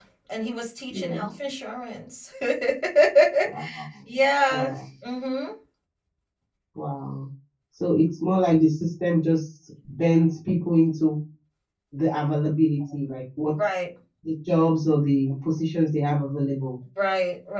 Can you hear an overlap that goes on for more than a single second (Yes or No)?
No